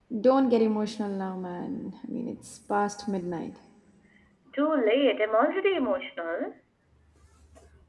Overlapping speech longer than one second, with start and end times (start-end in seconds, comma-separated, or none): none